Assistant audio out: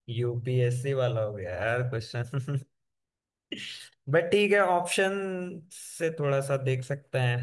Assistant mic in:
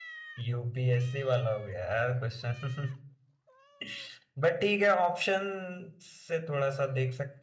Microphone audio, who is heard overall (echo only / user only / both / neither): echo only